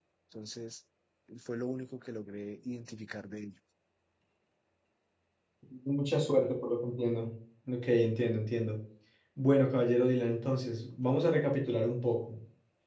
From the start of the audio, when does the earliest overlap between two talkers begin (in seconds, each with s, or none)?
none